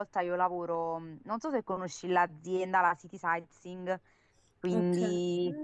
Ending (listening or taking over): taking over